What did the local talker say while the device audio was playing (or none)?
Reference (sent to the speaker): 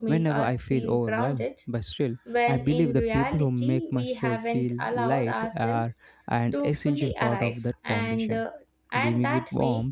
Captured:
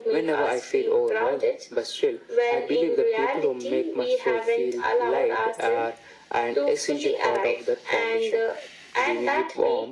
none